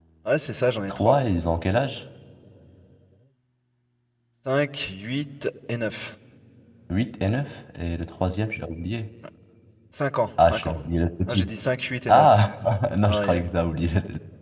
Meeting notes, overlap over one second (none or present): none